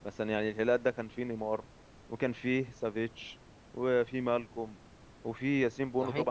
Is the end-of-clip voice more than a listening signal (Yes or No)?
No